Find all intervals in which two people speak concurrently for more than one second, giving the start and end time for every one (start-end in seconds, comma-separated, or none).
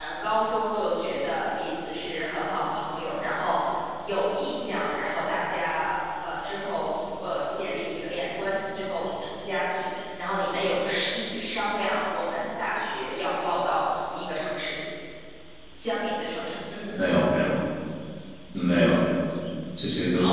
none